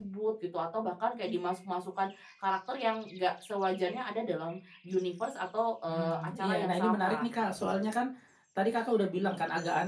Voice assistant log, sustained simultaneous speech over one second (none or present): present